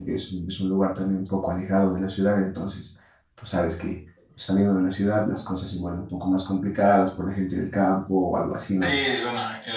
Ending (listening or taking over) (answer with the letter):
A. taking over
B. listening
A